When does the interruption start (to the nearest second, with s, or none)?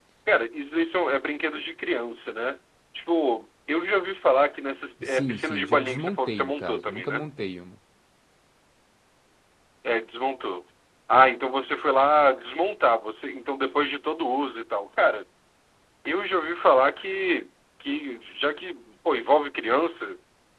5 s